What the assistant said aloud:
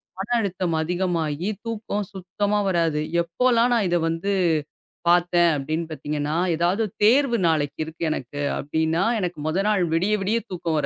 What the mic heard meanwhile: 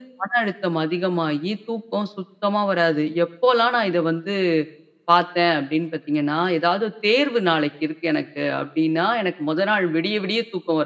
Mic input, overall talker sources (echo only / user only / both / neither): echo only